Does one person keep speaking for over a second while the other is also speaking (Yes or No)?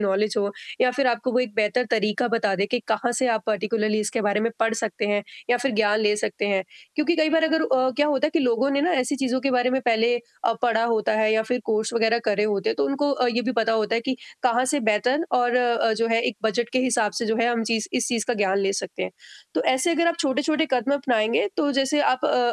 No